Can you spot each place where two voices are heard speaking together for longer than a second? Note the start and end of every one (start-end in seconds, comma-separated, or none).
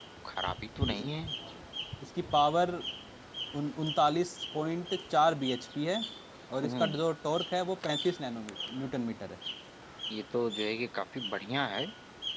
none